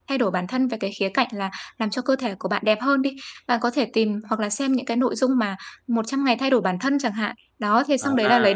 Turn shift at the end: No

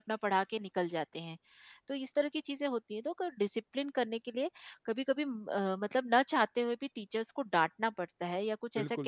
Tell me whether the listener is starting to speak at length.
Yes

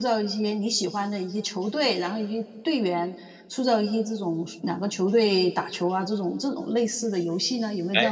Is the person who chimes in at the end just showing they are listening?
No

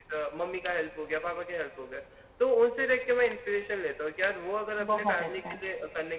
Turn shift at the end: No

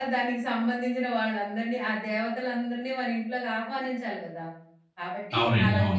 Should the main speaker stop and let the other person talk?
No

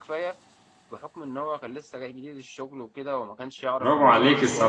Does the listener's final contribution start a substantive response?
Yes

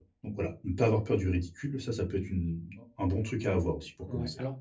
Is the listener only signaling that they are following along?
No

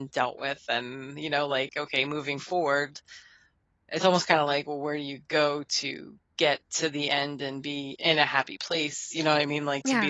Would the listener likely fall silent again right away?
Yes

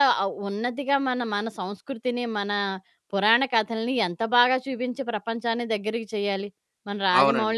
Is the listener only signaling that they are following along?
No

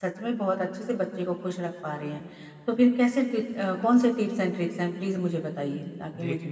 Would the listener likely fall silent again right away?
No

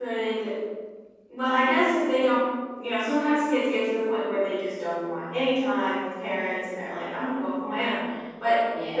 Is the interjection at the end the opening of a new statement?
No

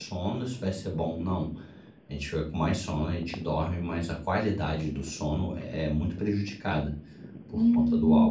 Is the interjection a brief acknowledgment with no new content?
No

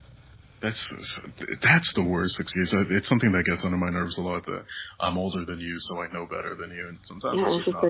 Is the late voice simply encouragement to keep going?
No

